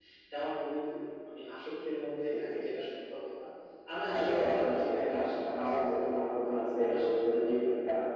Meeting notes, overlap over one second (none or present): present